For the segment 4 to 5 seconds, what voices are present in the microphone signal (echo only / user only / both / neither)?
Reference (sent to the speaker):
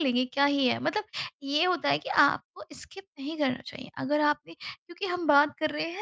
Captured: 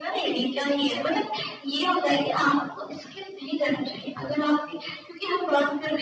echo only